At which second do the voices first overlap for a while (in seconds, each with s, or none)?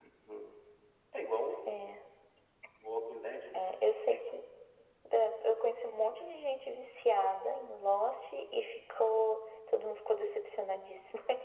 none